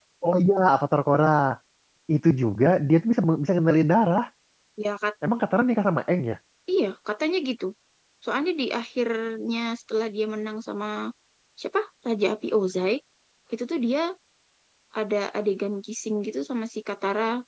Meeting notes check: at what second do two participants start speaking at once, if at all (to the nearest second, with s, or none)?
none